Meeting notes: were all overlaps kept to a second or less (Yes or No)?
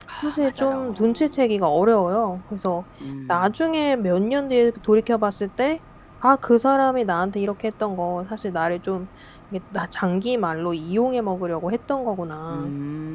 No